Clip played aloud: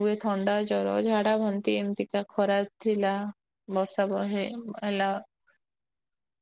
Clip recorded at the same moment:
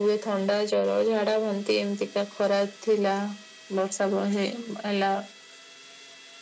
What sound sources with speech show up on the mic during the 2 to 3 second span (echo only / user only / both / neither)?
echo only